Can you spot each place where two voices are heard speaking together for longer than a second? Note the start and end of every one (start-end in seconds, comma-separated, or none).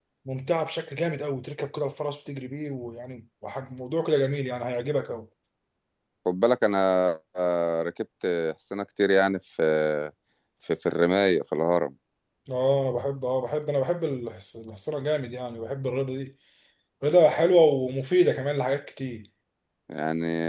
none